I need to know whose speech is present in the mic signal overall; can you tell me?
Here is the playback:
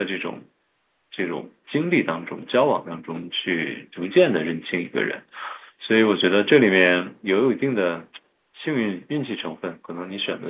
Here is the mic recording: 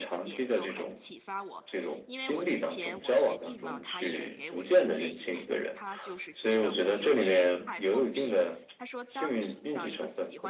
both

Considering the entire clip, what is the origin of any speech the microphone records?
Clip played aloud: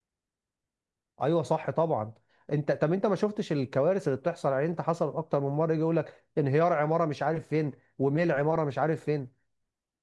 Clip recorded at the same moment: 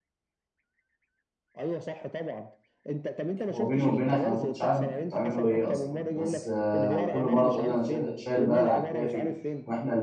both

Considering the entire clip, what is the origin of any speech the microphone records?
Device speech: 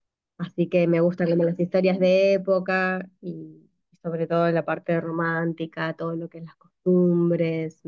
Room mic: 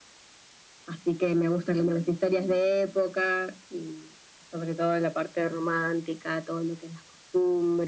echo only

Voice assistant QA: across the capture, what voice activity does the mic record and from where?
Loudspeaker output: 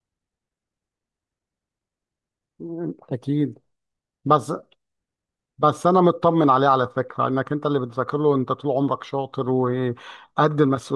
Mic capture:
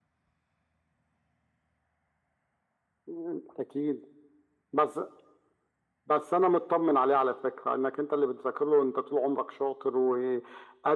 echo only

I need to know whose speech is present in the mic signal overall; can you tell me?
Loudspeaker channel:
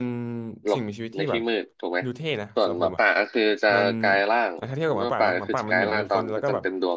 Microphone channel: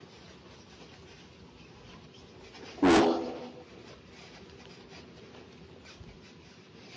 user only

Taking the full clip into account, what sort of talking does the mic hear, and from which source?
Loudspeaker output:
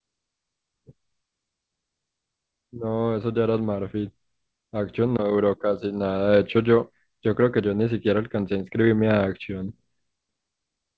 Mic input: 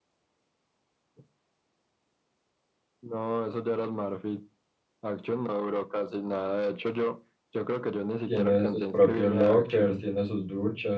both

